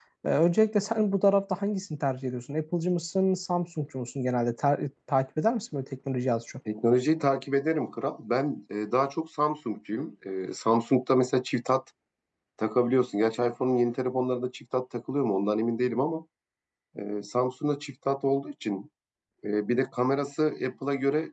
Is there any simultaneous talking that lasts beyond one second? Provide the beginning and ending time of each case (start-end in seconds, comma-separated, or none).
none